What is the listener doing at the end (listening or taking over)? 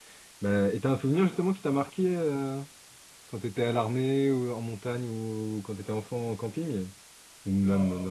taking over